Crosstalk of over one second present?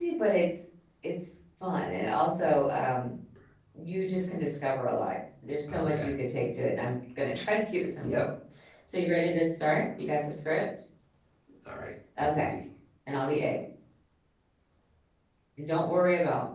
No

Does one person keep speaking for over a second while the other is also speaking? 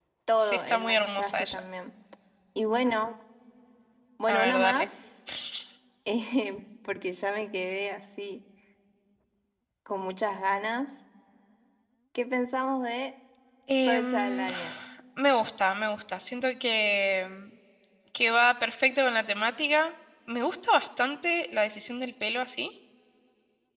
Yes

